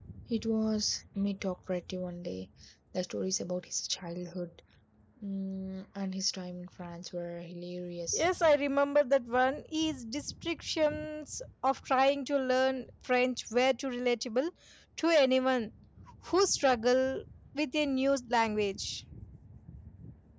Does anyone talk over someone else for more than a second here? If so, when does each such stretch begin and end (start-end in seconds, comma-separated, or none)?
none